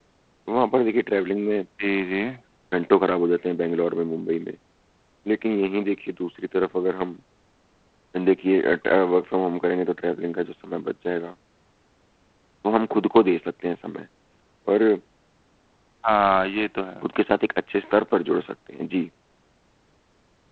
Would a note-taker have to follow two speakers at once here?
No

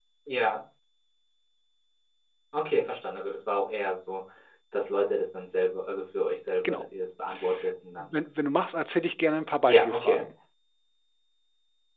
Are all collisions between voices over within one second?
Yes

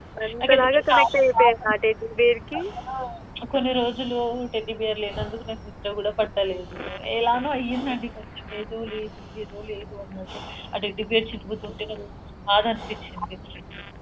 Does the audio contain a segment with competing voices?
Yes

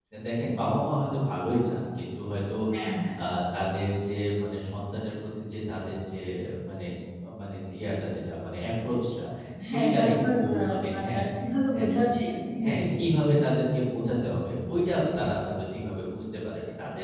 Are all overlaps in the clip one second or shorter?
No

